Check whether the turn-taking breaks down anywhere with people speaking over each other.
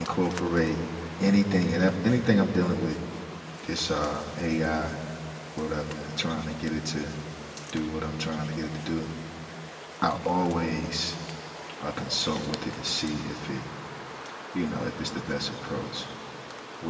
No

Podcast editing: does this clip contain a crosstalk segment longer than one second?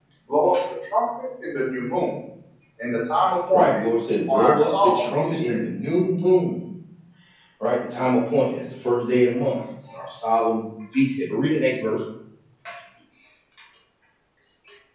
Yes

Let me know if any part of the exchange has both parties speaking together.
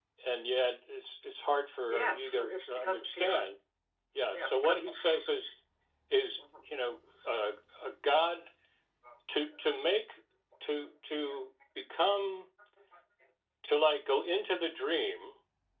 Yes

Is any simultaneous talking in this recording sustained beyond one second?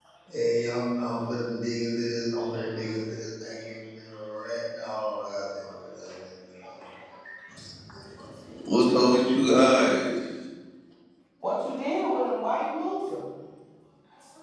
No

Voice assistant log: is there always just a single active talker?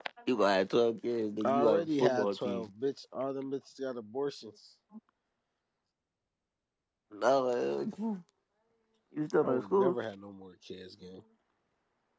No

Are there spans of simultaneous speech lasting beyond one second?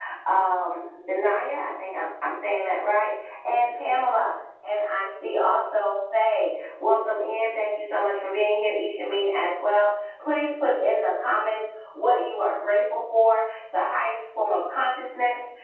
No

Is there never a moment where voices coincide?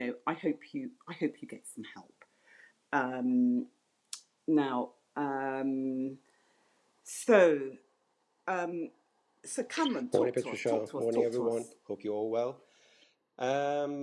No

